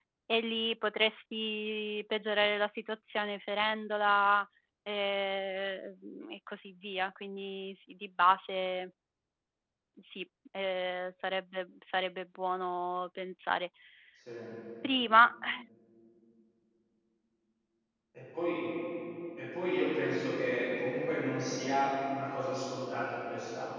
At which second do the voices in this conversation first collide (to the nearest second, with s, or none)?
none